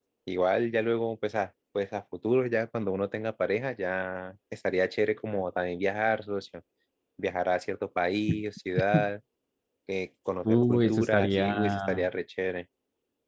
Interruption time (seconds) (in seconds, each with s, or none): 10.4 s